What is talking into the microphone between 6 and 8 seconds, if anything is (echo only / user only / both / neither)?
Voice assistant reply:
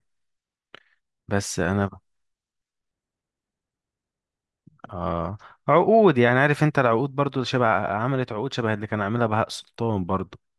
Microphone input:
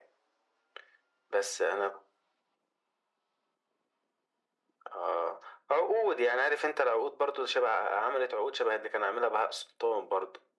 echo only